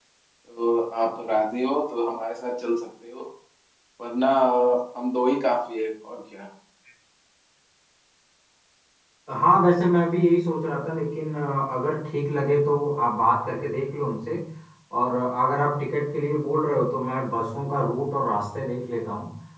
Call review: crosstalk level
none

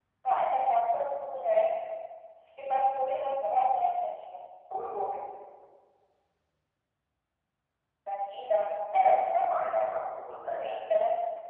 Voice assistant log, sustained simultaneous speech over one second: none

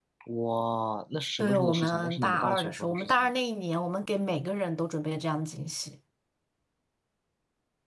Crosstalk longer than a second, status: present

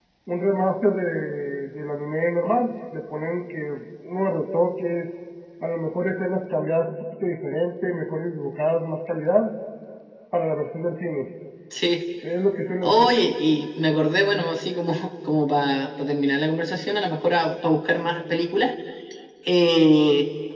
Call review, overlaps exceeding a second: none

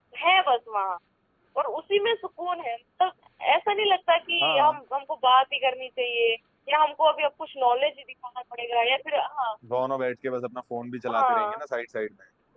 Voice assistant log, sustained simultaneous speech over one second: none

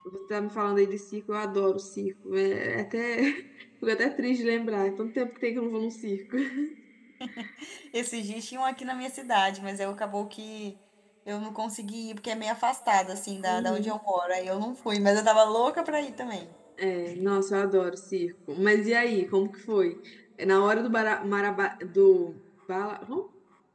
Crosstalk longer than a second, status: none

